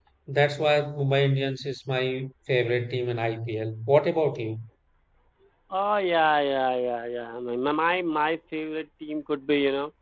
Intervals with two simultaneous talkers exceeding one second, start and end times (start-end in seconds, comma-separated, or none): none